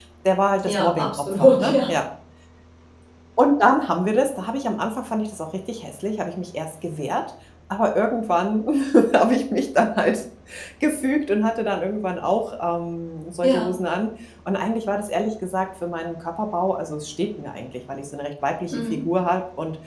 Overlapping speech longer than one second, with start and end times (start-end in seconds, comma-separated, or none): 0.6-2.0